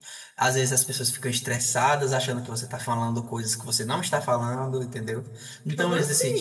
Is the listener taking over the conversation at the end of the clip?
No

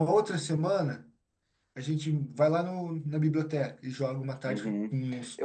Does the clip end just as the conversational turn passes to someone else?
Yes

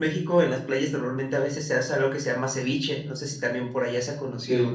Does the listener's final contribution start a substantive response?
Yes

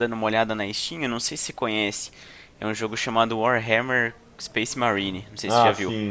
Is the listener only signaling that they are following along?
No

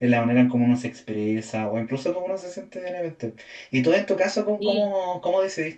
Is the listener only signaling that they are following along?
Yes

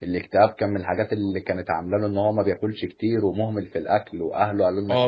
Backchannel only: No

